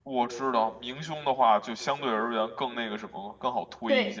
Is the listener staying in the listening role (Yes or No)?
No